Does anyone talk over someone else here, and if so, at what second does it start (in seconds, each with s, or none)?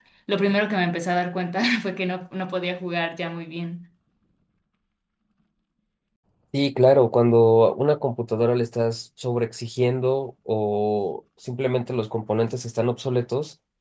none